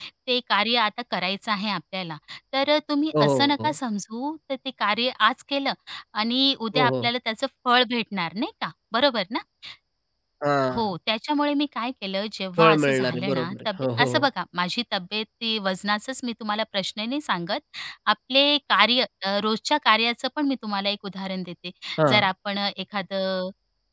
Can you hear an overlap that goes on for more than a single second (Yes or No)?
Yes